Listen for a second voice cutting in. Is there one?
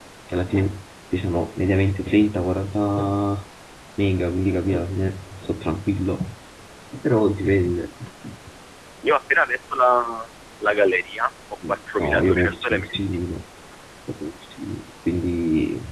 Yes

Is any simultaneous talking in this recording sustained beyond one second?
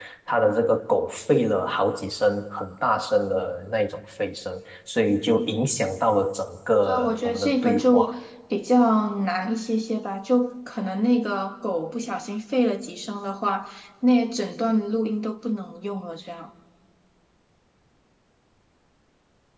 Yes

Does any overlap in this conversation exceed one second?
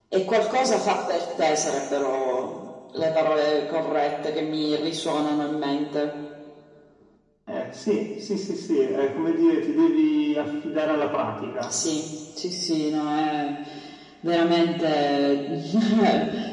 No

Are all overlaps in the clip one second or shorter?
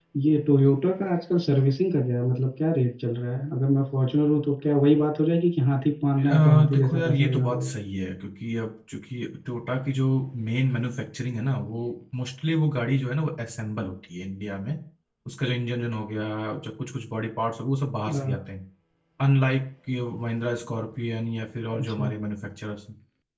No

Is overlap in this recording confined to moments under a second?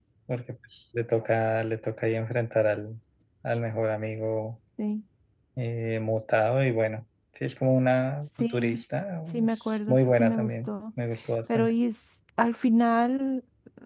No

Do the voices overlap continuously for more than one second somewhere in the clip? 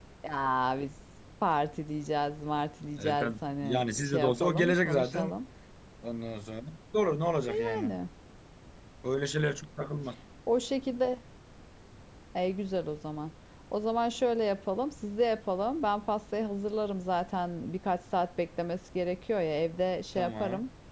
Yes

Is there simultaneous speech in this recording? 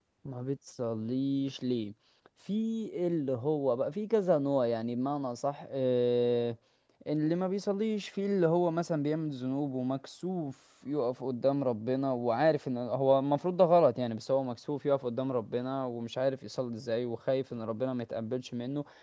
No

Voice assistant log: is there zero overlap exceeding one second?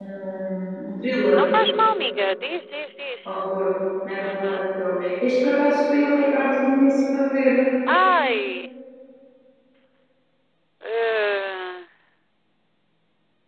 Yes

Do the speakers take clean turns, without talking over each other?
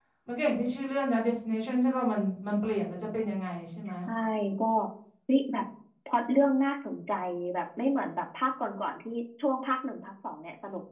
Yes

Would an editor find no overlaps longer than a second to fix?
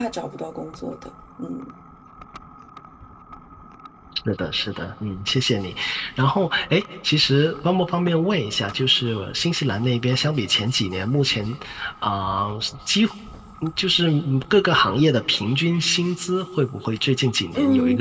Yes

